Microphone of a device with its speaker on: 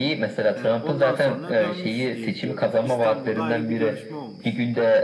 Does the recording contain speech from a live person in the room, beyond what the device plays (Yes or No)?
Yes